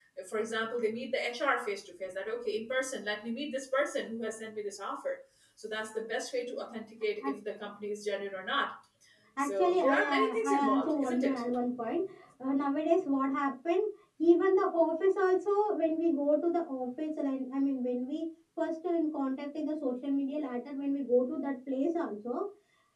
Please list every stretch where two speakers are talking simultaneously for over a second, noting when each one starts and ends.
9.4-11.4

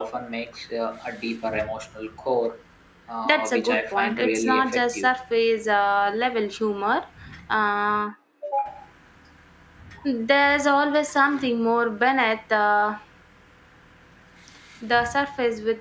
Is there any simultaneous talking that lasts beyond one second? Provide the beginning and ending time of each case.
3.2-5.1

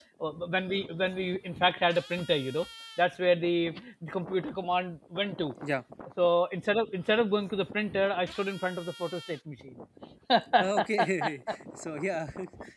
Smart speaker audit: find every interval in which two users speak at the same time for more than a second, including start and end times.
none

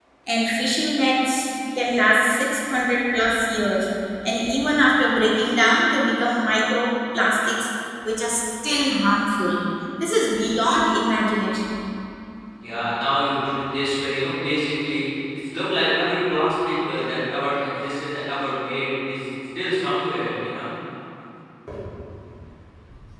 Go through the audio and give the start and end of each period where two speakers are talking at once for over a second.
none

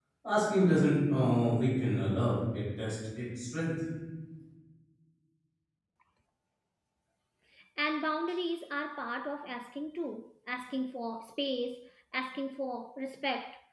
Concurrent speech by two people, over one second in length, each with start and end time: none

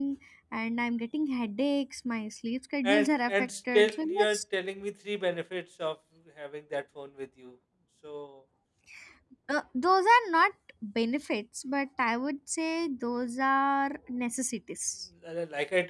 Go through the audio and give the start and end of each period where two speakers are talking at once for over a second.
2.9-4.4

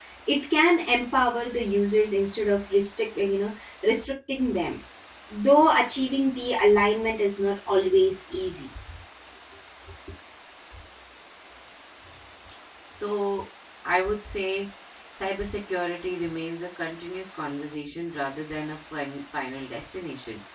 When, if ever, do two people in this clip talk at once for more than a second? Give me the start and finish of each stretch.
none

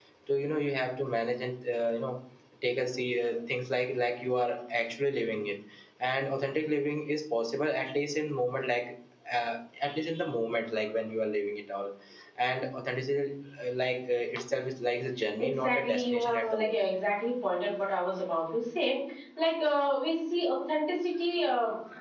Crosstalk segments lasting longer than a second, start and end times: 15.4-16.9

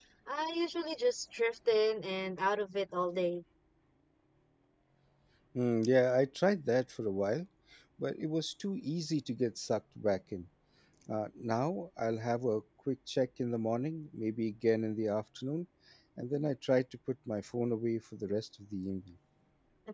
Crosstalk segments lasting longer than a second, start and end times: none

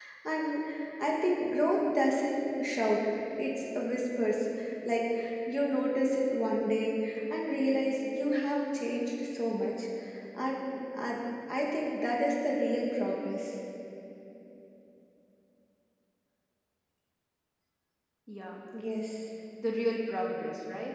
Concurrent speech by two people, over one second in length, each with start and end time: none

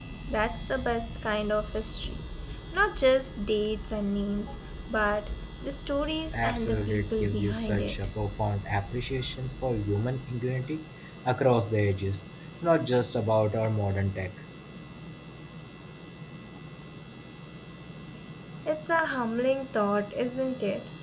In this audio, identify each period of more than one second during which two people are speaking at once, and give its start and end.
6.3-7.9

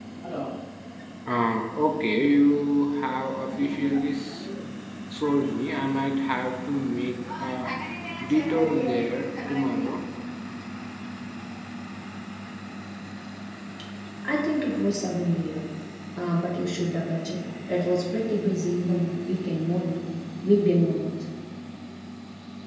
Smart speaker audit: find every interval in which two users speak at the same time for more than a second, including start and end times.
none

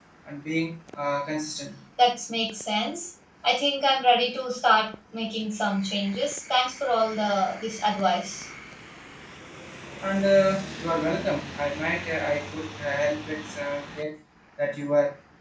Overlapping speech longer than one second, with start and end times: none

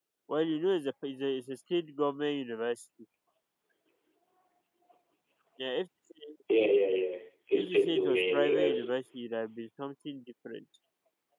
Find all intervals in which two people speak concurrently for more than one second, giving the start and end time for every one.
7.5-9.0

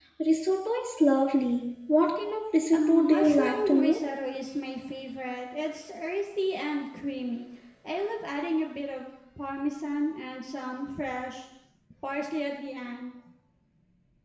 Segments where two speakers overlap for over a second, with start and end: 2.7-4.0

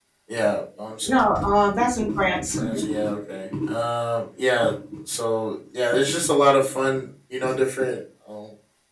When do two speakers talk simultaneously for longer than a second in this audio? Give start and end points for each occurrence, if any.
none

